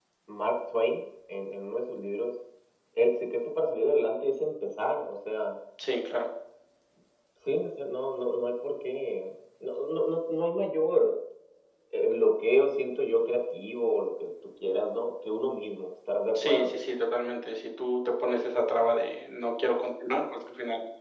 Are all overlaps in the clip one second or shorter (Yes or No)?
Yes